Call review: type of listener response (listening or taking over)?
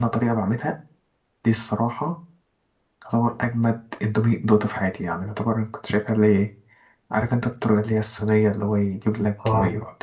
listening